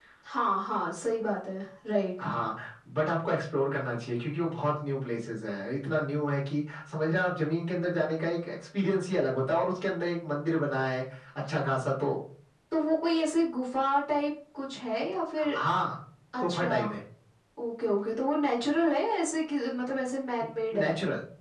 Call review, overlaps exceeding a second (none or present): none